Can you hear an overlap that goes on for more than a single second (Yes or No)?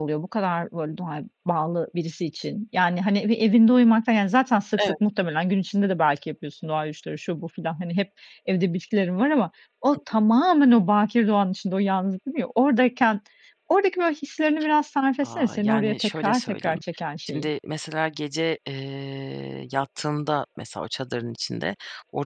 Yes